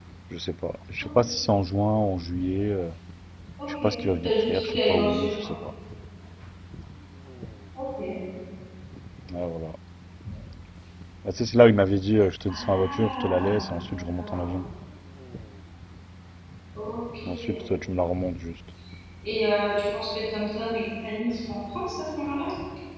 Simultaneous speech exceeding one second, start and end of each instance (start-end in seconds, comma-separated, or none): 3.8-5.5, 12.5-14.4